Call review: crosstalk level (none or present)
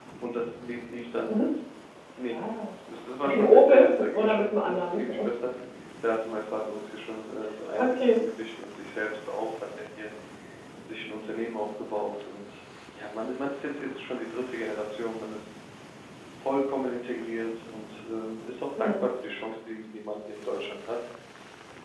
present